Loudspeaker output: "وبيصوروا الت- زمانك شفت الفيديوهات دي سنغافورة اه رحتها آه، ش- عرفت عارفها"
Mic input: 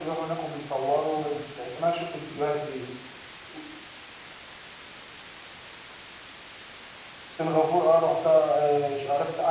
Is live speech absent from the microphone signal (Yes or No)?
Yes